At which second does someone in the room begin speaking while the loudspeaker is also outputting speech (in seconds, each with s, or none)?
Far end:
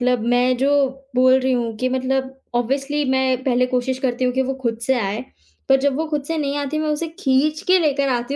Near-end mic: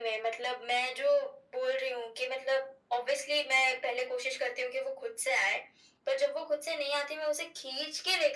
none